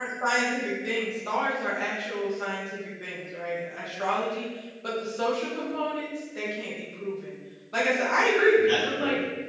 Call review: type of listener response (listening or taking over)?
listening